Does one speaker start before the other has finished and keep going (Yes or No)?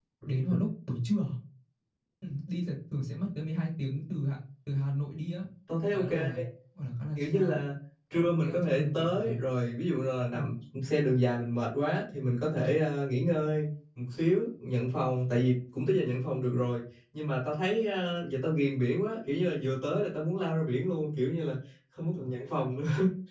Yes